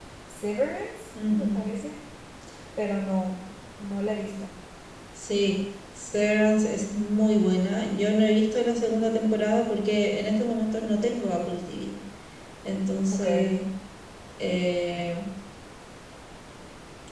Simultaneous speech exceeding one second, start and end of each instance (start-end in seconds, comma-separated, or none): none